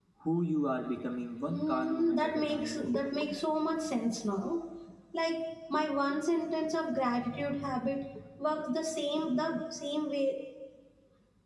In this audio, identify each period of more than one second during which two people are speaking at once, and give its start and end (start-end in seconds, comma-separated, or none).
1.5-2.8